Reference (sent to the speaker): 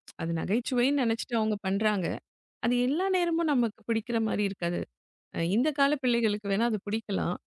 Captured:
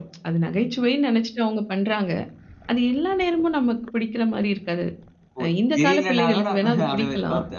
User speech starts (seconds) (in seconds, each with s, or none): 5.4 s